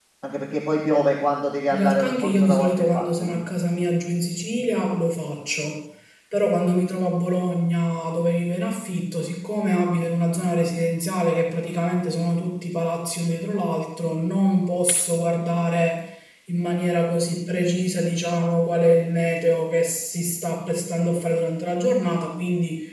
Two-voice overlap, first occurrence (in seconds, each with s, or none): 1.7 s